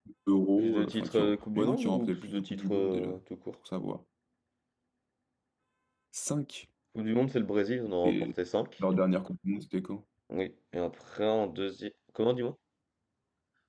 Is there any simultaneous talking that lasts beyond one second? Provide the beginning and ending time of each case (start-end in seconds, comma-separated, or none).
0.6-3.1